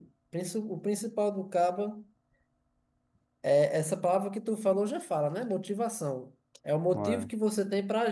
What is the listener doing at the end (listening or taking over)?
listening